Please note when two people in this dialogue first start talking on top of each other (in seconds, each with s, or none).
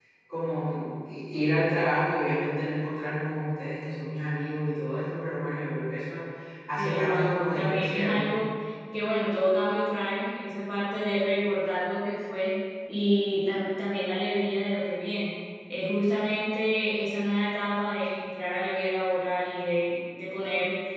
6.8 s